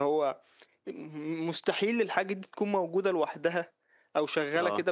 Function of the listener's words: listening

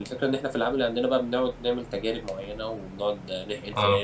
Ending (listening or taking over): listening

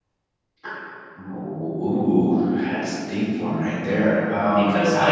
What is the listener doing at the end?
taking over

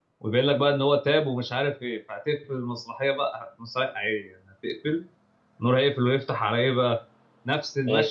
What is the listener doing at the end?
listening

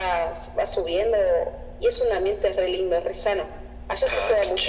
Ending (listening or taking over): taking over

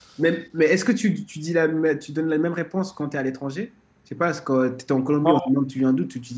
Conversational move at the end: listening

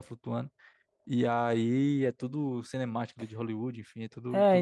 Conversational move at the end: taking over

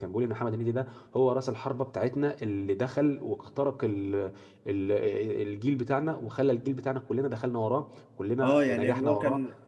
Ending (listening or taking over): taking over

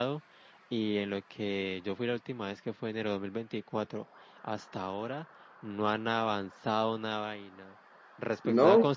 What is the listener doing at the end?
listening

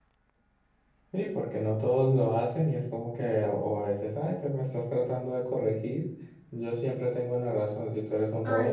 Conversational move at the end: listening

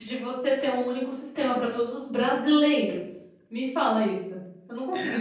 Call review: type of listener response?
taking over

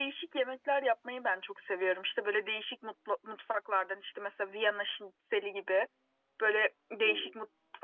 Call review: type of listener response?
listening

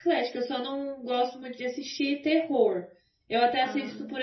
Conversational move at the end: listening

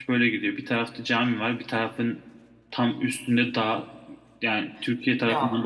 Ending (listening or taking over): listening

